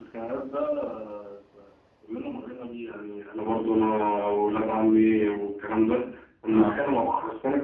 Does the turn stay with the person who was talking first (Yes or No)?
Yes